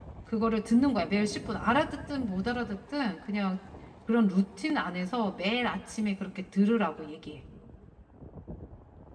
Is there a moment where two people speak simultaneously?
No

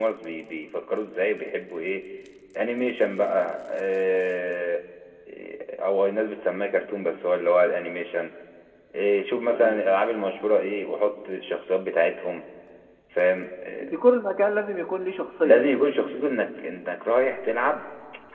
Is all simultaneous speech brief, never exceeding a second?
Yes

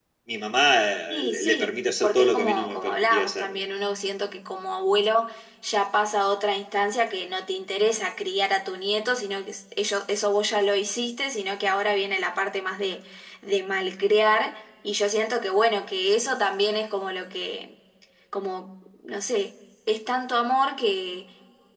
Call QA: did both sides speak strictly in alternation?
No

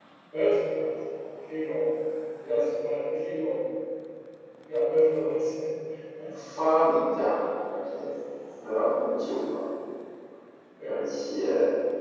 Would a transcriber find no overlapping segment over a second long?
Yes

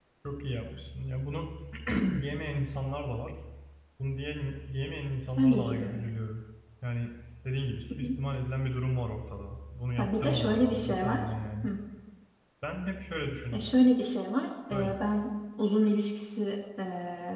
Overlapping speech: Yes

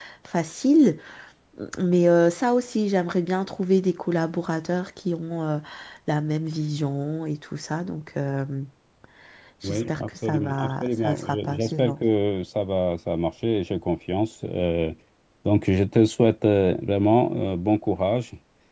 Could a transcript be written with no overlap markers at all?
No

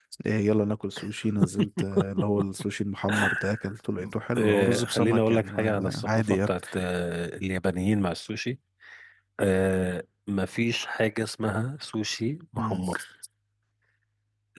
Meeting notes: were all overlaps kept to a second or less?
No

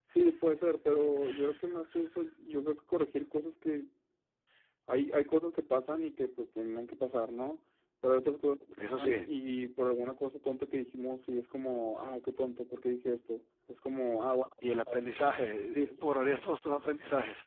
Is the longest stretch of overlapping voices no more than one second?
Yes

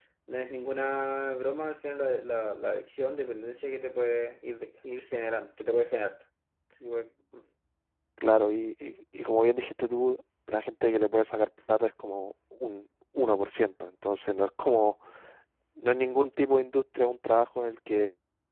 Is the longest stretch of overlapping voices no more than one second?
Yes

